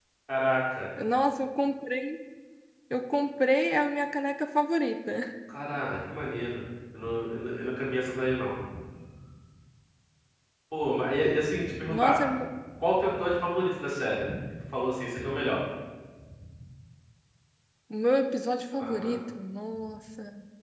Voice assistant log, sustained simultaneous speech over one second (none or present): none